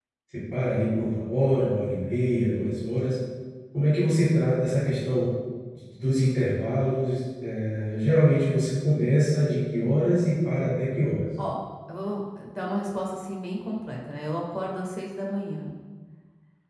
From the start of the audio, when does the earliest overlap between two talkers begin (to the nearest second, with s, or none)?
none